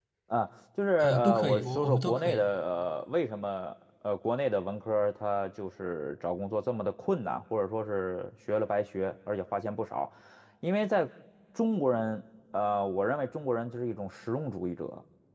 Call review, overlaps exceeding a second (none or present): present